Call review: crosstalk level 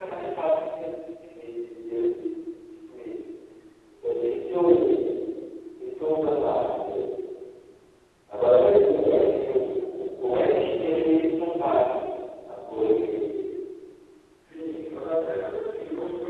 none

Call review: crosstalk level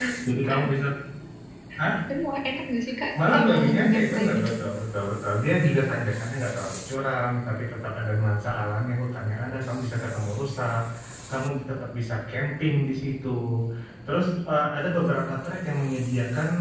present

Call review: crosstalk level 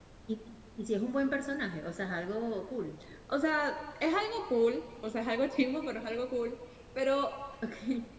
none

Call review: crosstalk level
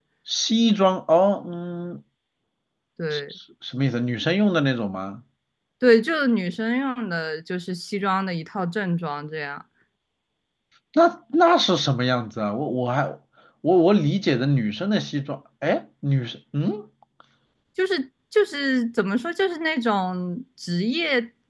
none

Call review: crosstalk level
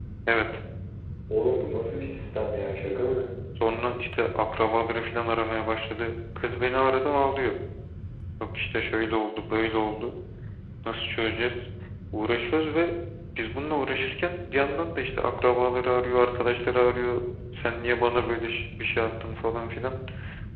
none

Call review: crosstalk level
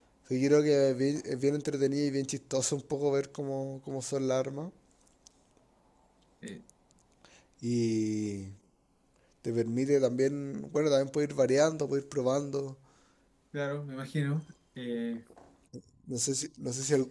none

